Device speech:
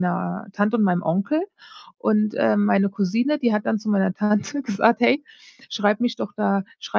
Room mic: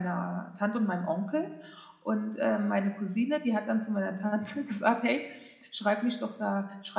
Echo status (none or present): present